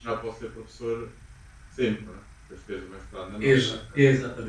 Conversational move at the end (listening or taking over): taking over